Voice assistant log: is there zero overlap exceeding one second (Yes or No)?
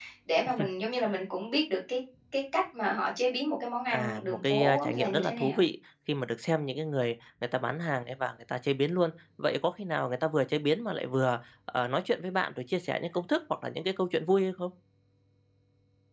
No